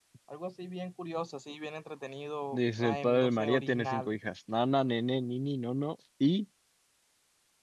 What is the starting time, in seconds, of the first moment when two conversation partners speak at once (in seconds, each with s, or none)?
2.5 s